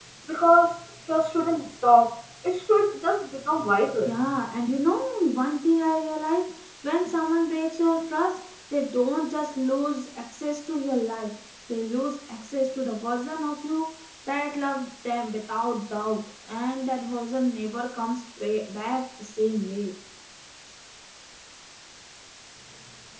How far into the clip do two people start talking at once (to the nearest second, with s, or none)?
none